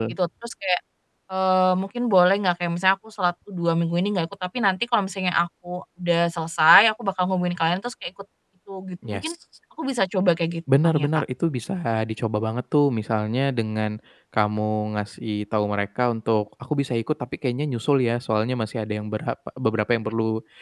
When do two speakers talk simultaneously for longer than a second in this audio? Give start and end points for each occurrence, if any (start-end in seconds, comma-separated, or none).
none